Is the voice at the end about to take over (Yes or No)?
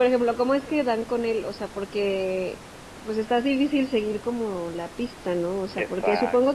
No